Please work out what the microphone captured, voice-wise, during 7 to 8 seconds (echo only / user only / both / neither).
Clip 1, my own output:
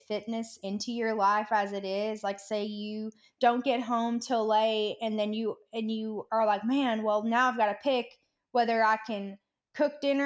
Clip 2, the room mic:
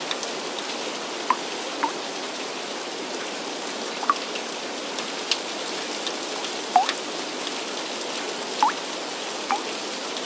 neither